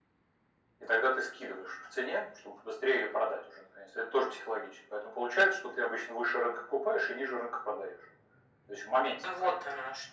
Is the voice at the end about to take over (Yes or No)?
Yes